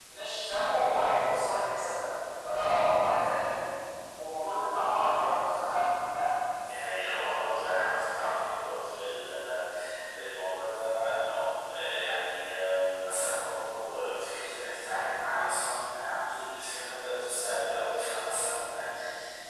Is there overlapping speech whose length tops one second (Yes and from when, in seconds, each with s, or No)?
No